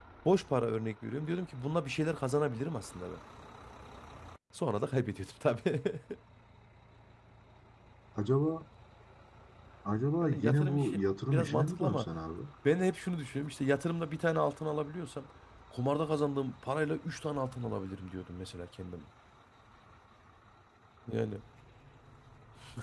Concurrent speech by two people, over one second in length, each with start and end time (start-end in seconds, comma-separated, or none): 10.2-12.1